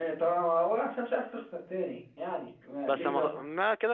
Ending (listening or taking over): taking over